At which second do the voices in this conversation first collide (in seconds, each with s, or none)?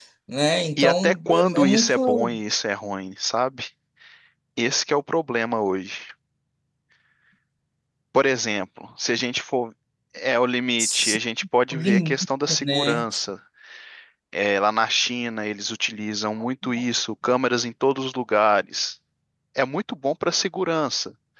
0.8 s